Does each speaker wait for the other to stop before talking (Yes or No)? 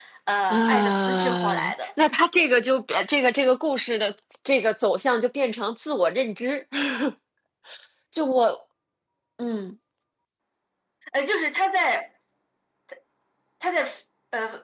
No